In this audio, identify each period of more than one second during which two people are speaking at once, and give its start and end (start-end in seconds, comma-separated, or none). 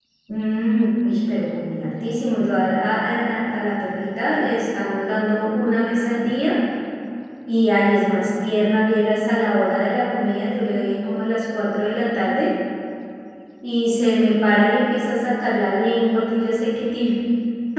none